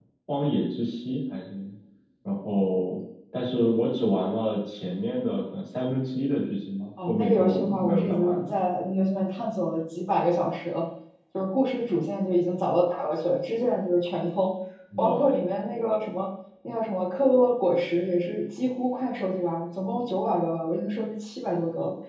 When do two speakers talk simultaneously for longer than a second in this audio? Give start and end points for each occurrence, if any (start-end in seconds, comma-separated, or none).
7.1-8.4